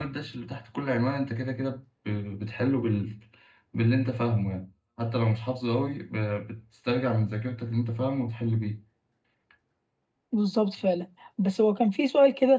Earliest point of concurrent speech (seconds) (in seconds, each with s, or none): none